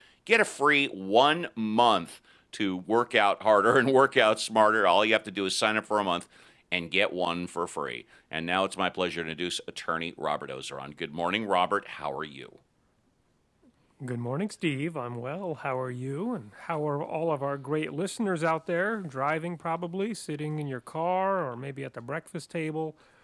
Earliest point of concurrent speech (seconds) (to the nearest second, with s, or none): none